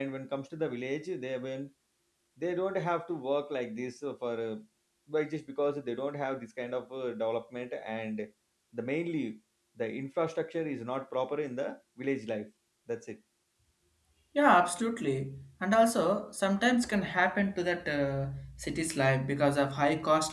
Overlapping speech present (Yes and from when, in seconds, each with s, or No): No